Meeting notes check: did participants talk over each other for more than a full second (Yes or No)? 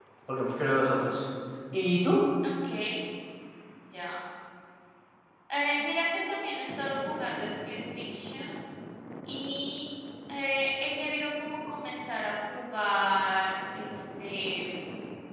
No